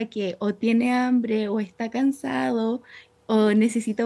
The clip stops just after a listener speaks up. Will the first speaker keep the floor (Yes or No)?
Yes